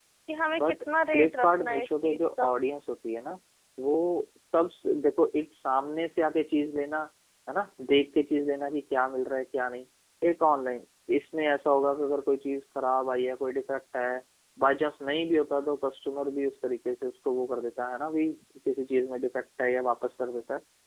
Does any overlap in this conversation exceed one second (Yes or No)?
Yes